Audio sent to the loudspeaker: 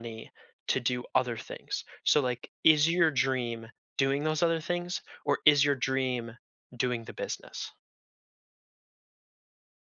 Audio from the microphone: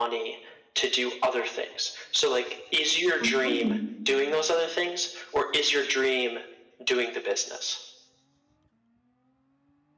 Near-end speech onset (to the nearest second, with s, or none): 3 s